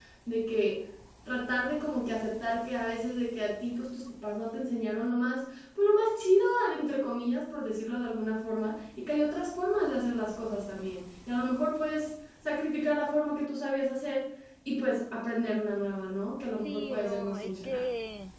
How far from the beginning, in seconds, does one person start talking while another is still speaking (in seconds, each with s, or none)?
16.6 s